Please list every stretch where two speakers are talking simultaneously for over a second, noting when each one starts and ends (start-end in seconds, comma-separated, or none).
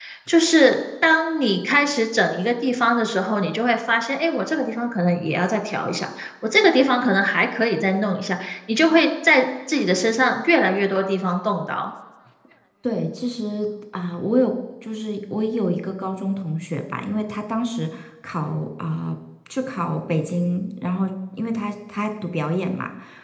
none